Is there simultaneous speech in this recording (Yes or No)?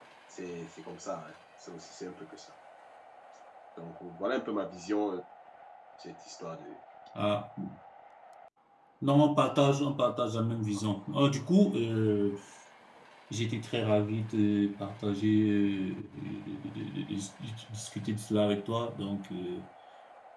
No